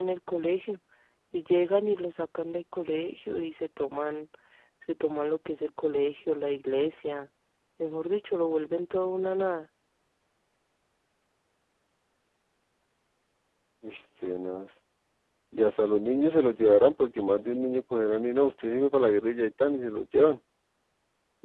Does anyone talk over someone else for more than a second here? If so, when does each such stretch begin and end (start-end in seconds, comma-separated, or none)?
none